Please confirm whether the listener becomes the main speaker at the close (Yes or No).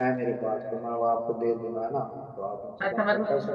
Yes